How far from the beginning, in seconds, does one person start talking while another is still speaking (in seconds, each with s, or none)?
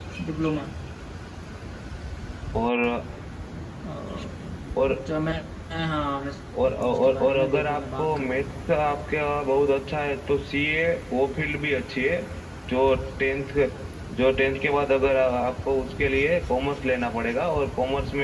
6.8 s